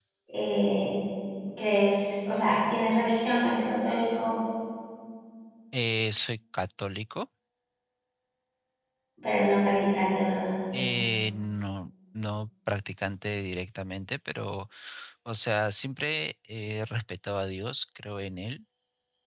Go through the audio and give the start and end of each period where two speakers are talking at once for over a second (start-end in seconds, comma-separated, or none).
none